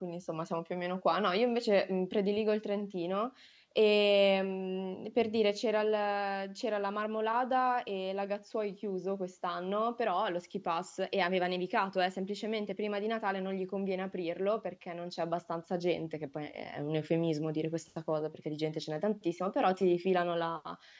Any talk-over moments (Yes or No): No